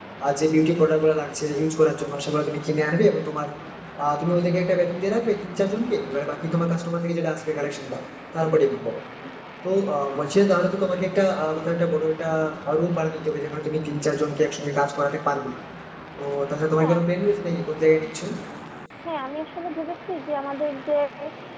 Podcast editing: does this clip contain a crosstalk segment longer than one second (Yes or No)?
No